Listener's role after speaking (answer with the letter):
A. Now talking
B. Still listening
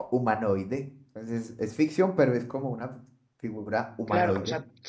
A